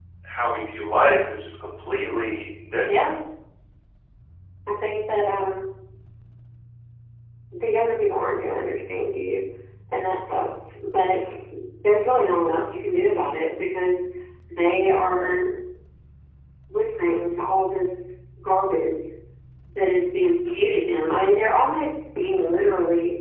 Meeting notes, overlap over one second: none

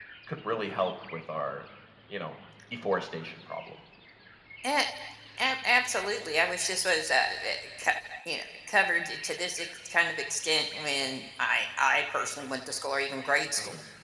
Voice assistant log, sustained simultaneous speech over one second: none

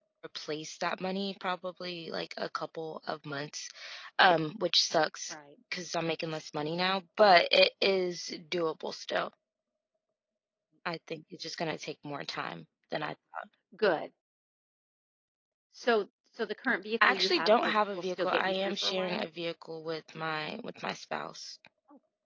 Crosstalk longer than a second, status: present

